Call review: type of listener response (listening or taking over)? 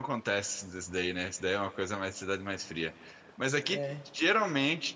listening